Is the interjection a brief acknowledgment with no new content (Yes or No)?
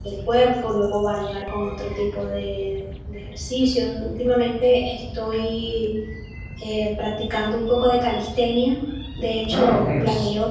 Yes